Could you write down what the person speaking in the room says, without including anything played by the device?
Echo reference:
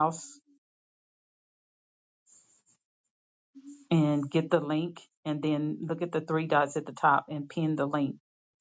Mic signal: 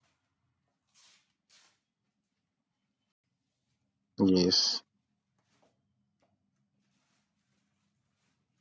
Yes.

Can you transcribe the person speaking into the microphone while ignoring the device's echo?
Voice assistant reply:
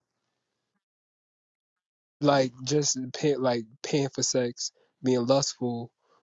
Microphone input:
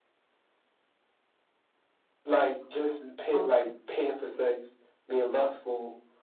Okay.

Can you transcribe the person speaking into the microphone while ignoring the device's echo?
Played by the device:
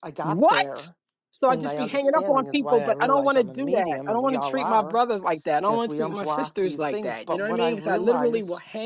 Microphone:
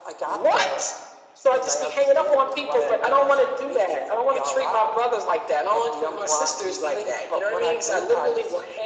none

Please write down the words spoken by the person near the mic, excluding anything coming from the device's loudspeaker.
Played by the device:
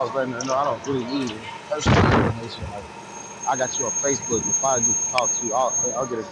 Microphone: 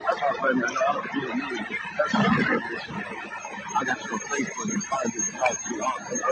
none

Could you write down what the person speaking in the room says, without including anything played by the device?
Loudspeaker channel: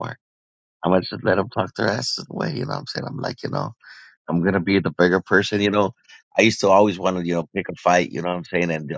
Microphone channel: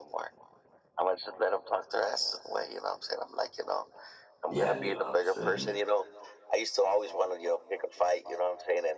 yeah. You know what I'm saying?

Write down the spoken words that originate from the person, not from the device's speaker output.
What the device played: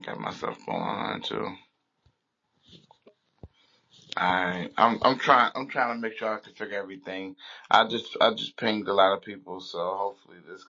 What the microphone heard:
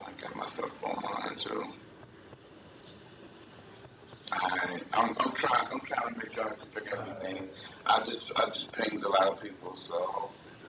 Ah, okay,

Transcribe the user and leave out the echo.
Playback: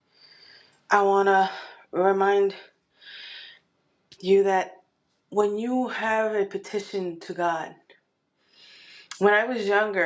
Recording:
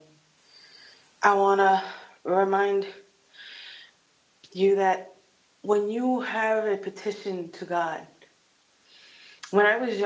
none

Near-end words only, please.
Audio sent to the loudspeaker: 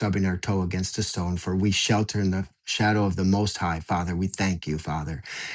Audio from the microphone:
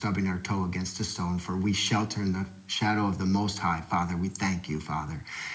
none

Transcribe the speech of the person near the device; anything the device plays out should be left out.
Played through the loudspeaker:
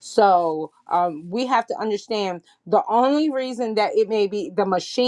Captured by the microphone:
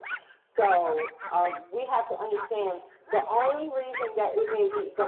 none

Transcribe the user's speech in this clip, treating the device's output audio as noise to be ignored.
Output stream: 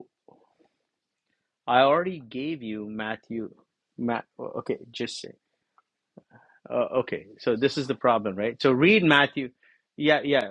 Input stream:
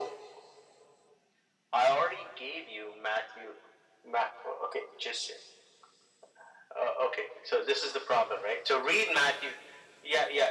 none

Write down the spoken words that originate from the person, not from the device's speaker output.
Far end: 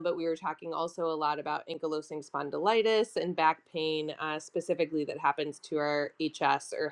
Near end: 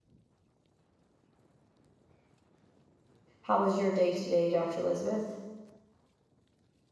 How was your day today, Dr. Elizabeth?

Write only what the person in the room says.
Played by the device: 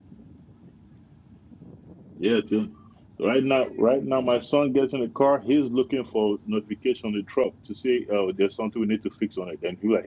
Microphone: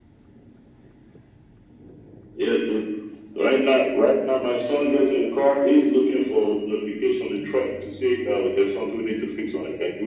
none

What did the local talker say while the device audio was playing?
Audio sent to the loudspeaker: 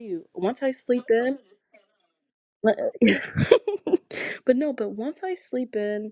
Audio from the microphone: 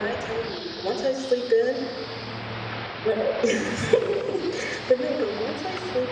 none

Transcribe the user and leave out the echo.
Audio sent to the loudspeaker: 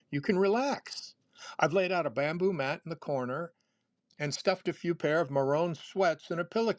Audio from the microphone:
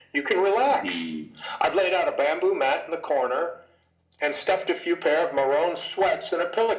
the

